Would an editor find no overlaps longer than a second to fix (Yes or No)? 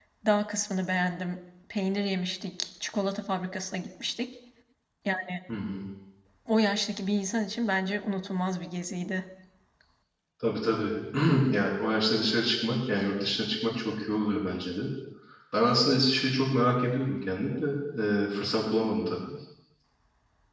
Yes